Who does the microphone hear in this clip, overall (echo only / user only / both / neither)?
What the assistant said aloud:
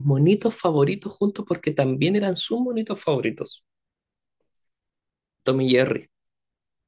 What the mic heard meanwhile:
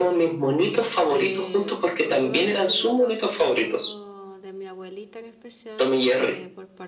both